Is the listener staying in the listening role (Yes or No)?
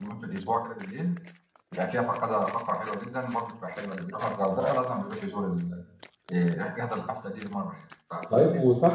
No